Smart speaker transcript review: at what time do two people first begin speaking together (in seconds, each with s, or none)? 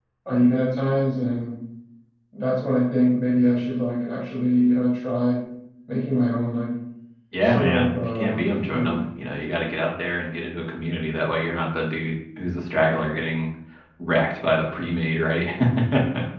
7.4 s